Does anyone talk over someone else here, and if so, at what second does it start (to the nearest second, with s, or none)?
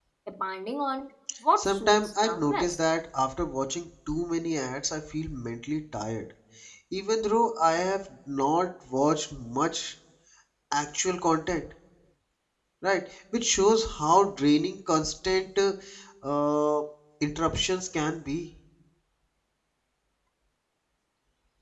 2 s